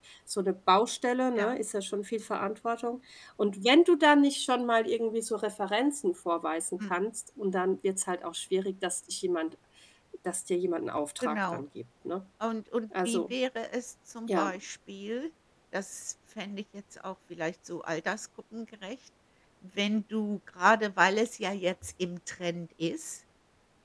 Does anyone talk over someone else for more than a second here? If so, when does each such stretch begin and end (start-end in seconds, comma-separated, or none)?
none